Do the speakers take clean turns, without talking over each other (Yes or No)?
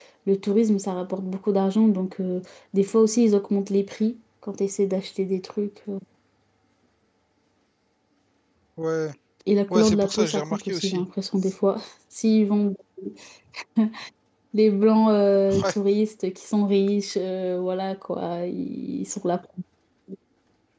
No